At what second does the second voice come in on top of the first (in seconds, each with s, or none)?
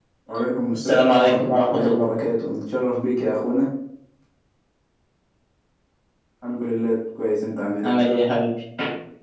0.7 s